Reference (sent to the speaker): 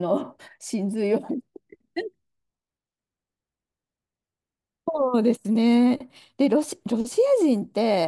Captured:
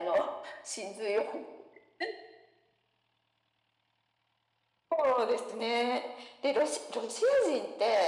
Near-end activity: none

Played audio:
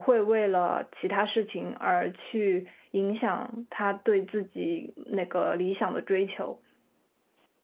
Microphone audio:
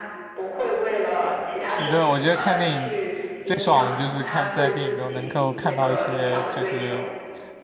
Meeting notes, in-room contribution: present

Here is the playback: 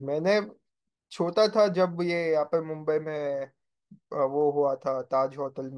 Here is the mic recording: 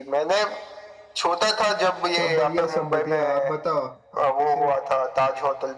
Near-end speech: present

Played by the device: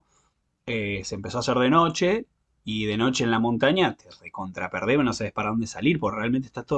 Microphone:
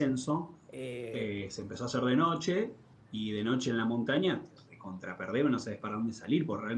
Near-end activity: present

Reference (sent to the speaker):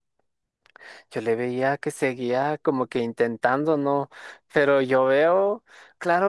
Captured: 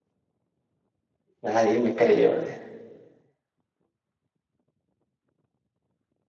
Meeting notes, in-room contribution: present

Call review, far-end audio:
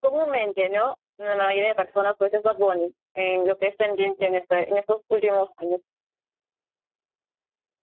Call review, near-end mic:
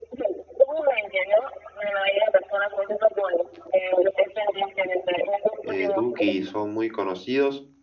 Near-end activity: present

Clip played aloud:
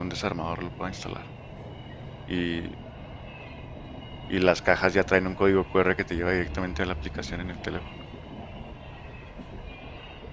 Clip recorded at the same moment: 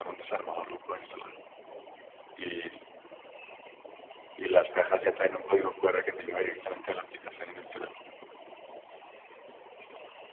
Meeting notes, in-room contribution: none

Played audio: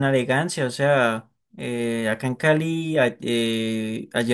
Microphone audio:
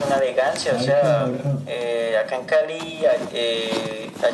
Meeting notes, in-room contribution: present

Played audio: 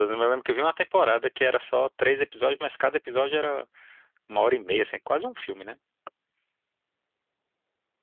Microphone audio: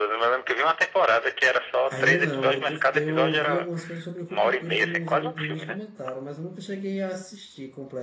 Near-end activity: present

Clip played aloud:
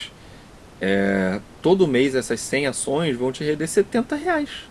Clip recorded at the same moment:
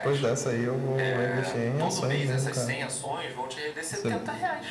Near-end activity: present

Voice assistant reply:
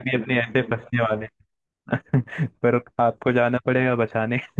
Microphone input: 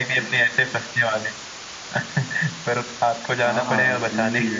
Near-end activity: present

